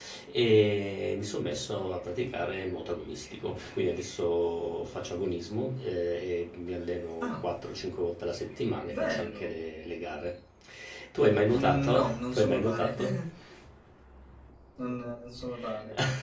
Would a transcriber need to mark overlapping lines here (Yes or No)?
Yes